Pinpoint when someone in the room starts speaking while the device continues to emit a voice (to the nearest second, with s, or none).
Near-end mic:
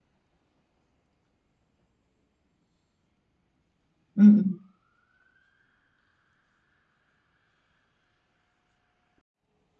4 s